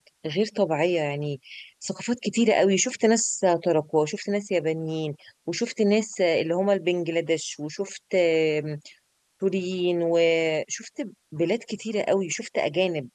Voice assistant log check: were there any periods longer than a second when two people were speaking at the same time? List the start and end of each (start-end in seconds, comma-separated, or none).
none